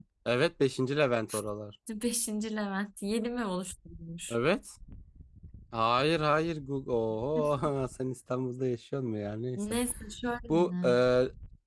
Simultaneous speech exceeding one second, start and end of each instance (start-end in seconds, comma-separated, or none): none